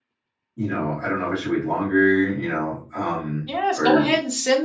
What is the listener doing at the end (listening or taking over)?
taking over